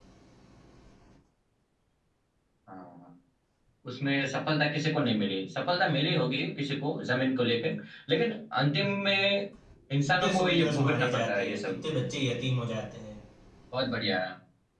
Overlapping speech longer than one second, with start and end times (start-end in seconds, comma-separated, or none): 10.1-11.8